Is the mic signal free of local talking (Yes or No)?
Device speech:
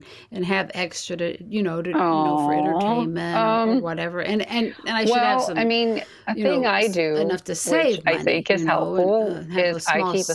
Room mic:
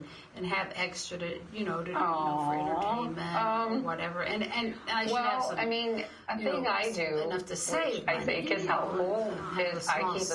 No